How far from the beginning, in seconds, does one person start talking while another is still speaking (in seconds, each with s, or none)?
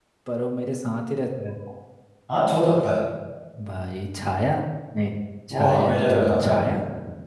5.5 s